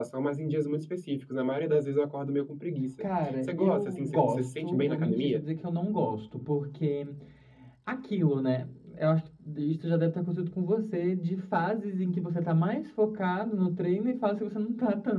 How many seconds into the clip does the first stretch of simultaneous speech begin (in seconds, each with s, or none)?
3.0 s